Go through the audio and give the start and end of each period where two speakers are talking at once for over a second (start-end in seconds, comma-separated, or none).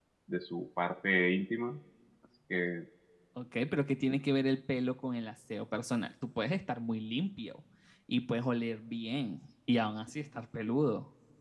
none